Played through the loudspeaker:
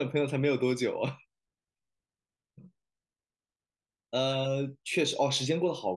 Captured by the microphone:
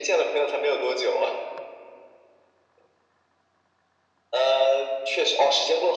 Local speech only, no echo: none

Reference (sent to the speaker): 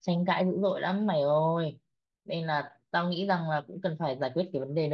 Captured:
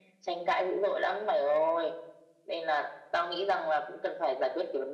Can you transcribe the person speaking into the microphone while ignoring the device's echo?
none

